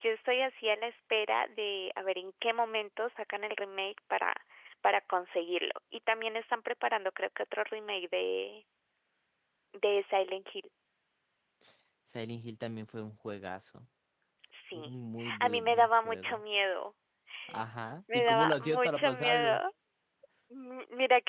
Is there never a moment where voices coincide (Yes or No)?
No